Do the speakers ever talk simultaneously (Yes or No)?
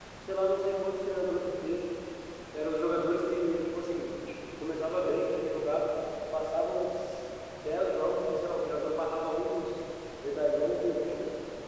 No